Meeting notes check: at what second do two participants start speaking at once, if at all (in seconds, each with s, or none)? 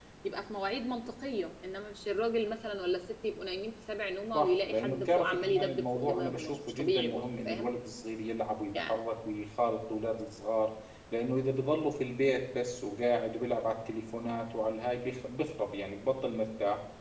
4.3 s